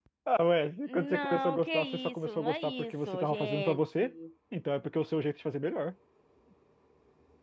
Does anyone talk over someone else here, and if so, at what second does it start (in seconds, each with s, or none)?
0.9 s